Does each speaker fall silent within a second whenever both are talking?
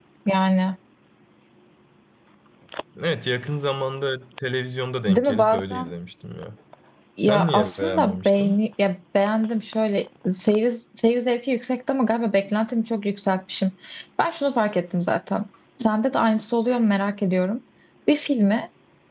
No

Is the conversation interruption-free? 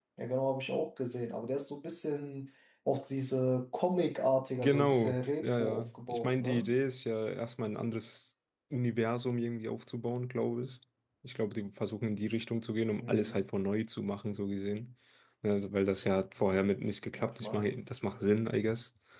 No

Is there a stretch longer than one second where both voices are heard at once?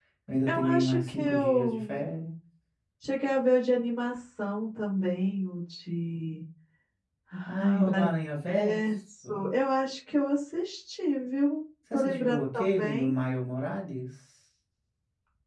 Yes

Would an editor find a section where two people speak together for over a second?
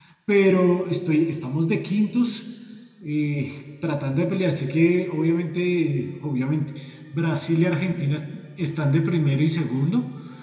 No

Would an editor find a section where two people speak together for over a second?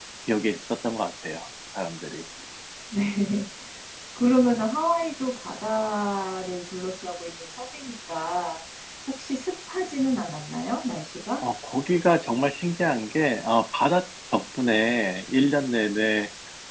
No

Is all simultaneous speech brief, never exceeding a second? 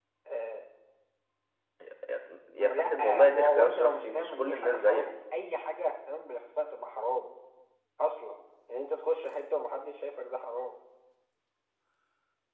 No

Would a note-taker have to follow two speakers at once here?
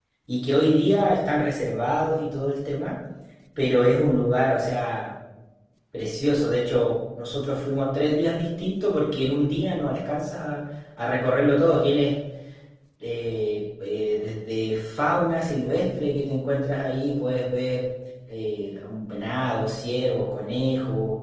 No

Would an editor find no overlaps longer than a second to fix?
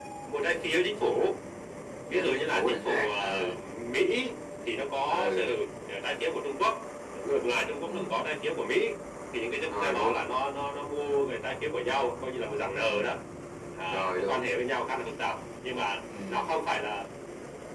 No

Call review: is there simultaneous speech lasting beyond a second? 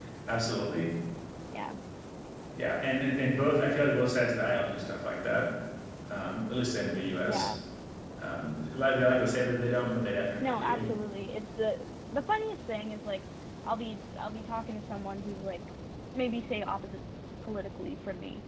No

